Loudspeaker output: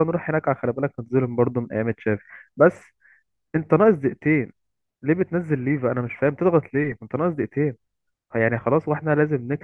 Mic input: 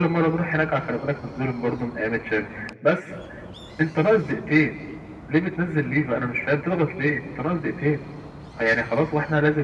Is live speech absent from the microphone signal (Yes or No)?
Yes